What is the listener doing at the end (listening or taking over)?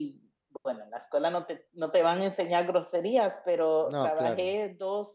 listening